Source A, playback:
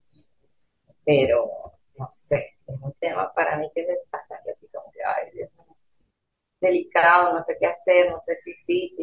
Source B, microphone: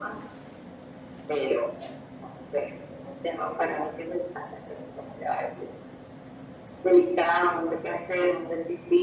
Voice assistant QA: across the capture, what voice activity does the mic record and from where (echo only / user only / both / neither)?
echo only